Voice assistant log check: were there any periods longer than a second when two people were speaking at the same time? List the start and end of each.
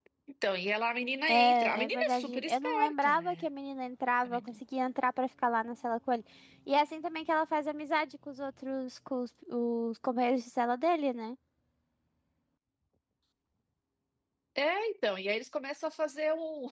1.3-3.5

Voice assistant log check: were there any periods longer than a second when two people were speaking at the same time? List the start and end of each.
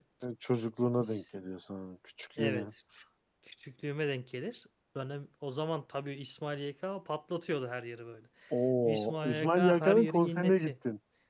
8.8-10.7

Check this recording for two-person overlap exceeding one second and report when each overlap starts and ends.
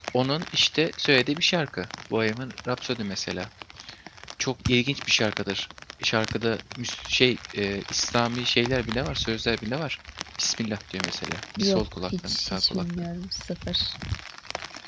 11.6-13.1

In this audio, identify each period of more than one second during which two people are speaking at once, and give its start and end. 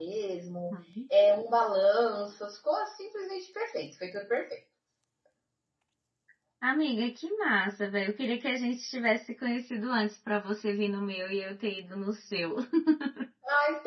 none

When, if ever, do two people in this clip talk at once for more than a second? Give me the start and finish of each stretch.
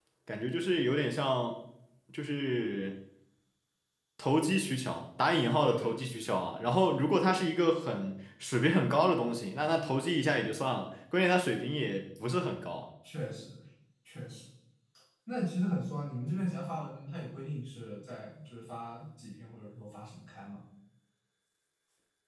none

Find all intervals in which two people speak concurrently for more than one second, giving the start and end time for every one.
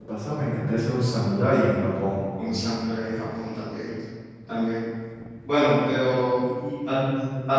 none

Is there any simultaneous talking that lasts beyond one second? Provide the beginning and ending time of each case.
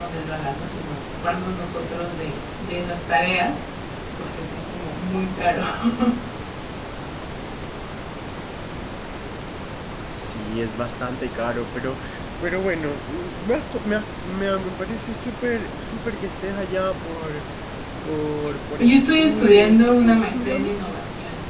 18.8-20.7

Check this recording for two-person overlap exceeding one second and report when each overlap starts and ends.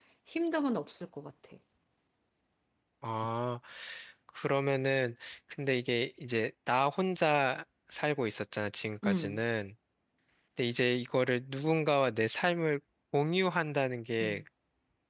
none

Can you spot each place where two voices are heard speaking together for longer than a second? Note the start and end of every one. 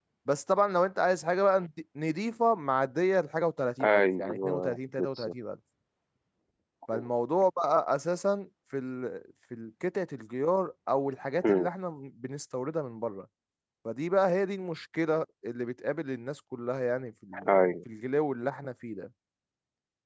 3.8-5.3

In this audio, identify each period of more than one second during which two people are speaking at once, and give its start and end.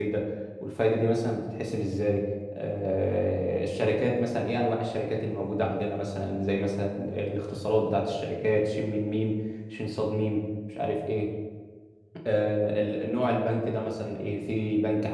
none

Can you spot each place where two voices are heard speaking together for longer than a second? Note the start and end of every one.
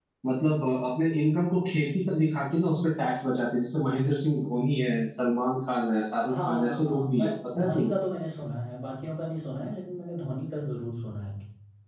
6.3-7.9

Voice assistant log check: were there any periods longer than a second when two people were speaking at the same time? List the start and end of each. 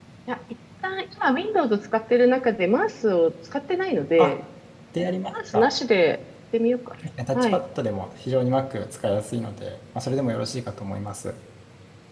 none

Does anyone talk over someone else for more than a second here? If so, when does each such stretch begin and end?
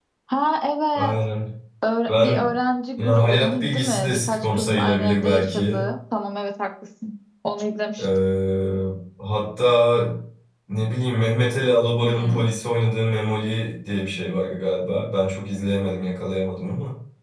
3.0-5.8

